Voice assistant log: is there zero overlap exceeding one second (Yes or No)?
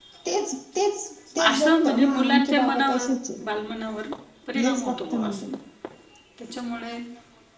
No